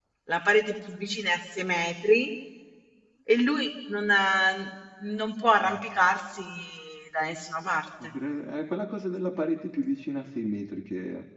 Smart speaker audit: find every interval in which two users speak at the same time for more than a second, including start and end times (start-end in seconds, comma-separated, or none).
none